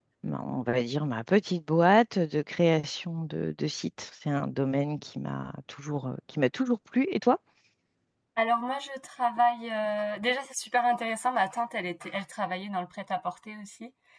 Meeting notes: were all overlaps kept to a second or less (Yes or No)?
Yes